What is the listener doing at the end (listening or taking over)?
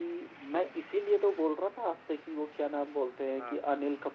listening